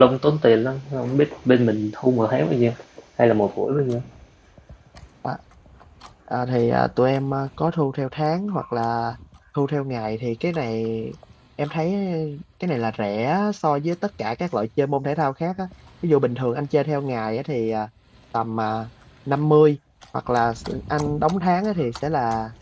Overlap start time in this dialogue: none

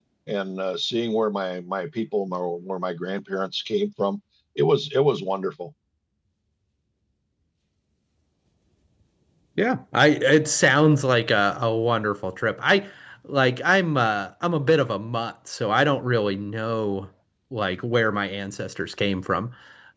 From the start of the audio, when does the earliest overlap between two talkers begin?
none

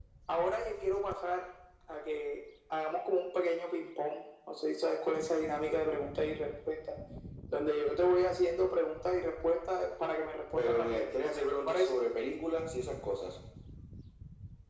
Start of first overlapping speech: 10.6 s

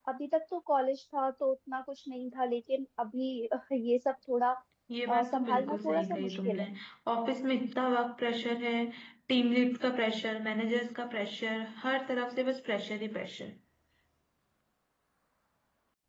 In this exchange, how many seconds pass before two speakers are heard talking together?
5.1 s

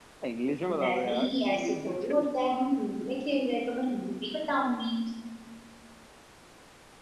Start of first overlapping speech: 0.7 s

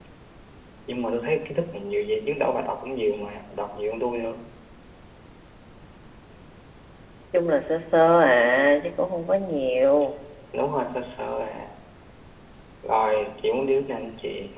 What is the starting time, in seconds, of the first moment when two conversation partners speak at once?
none

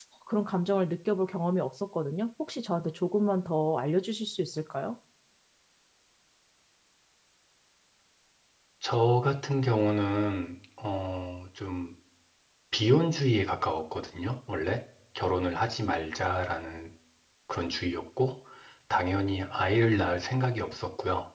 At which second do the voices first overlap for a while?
none

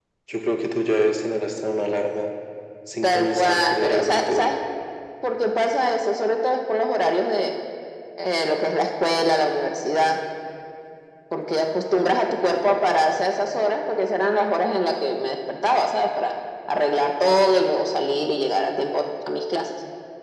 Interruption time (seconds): 3.0 s

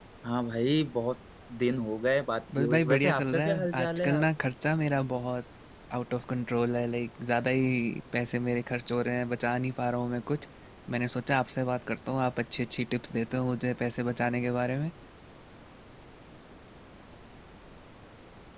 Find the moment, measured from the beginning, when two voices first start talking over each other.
2.5 s

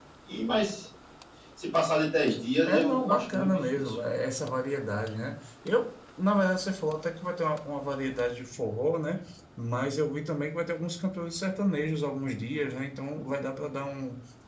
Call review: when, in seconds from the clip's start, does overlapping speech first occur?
2.6 s

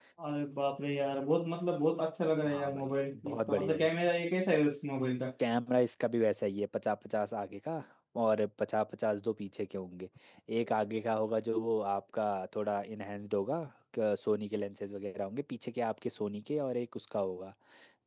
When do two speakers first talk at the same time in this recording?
2.5 s

